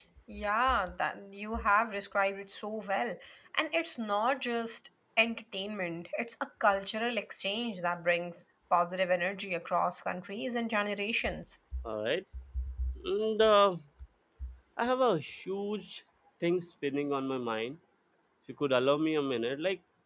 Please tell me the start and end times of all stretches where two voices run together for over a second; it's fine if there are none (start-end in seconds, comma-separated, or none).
none